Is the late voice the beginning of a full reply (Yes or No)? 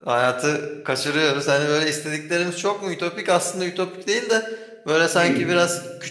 No